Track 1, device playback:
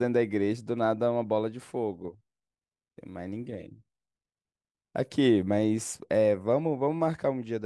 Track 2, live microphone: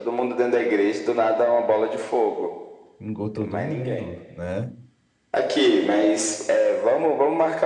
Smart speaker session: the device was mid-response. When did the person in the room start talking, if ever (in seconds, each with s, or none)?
3.0 s